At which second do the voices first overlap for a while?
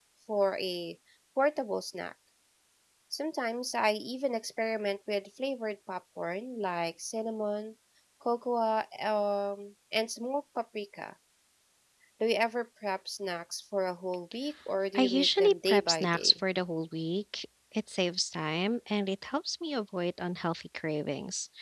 14.9 s

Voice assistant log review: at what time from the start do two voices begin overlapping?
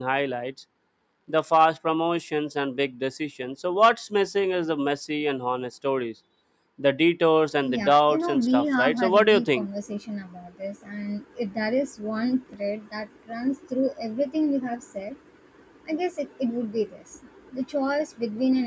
7.6 s

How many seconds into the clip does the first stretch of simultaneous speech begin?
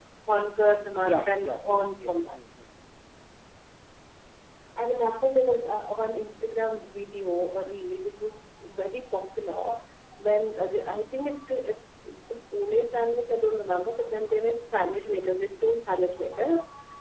1.0 s

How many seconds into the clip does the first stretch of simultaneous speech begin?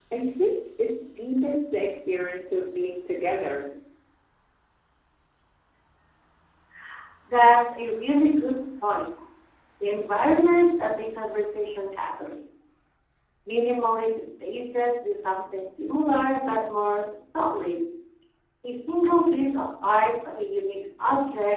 none

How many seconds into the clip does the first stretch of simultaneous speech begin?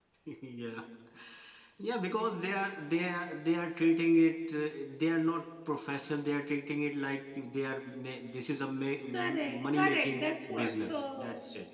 9.1 s

